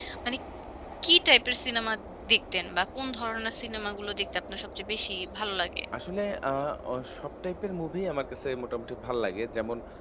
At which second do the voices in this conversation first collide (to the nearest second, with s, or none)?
none